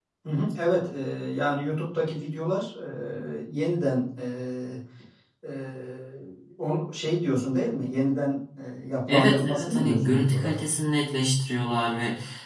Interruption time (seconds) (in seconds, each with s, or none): 9.1 s